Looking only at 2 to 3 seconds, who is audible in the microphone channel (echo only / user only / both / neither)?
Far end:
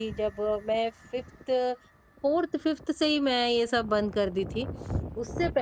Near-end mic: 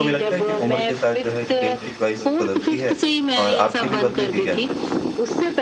both